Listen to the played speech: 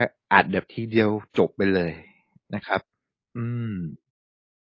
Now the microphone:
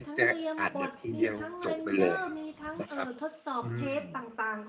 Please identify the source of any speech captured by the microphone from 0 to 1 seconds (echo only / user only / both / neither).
both